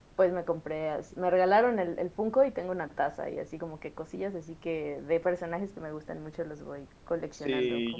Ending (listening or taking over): taking over